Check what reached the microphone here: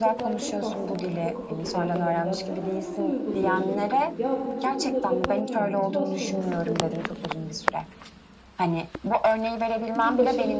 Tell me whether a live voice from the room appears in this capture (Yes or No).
Yes